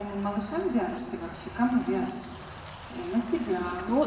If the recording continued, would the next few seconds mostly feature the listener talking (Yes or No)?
Yes